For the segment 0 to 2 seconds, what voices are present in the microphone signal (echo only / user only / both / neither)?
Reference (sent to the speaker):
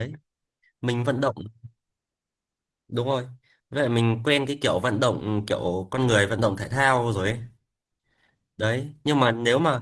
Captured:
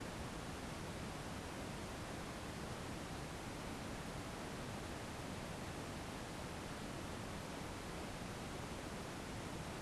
neither